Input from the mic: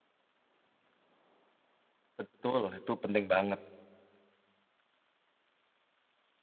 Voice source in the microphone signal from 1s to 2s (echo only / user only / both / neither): neither